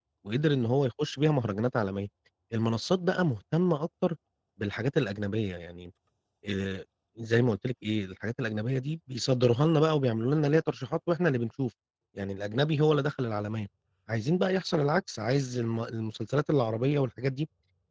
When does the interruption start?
none

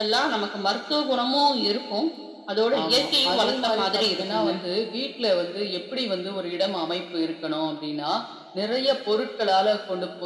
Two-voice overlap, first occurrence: 2.8 s

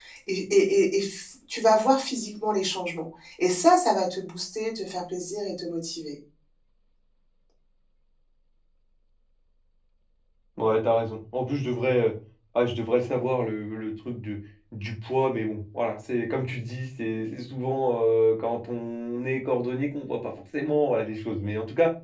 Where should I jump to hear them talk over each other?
none

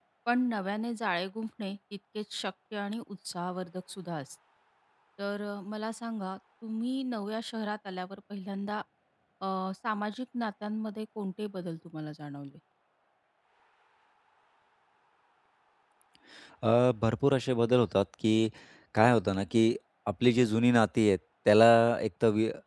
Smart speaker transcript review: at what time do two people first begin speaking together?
none

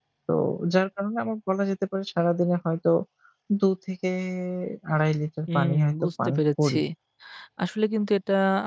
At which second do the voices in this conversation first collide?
5.5 s

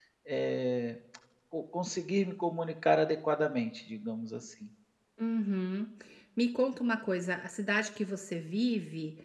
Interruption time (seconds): none

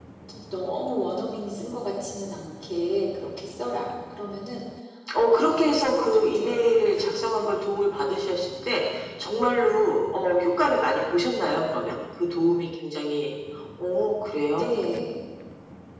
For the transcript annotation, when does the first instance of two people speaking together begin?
5.3 s

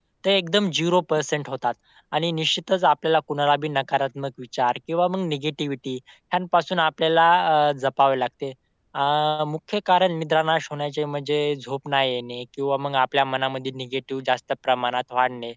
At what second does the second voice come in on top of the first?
none

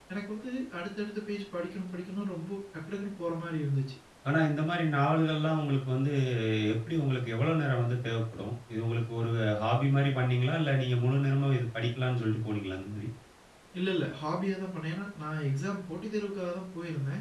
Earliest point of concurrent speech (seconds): none

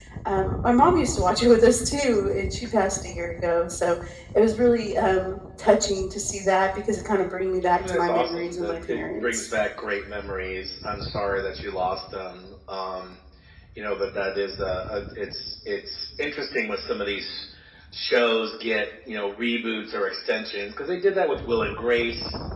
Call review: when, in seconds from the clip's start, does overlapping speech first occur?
7.8 s

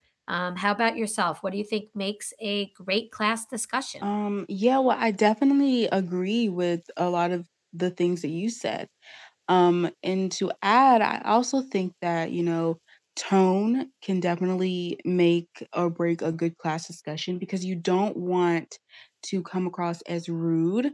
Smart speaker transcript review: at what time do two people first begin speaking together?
none

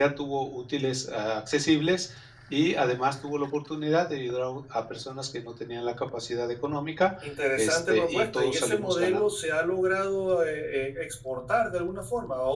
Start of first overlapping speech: 7.6 s

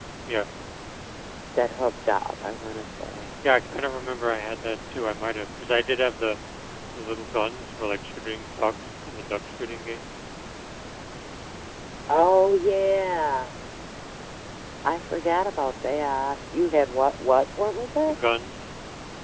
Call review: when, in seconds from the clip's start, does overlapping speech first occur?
none

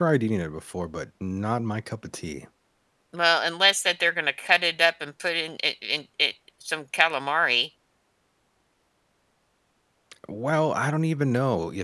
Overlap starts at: none

